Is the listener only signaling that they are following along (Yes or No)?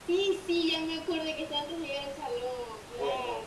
No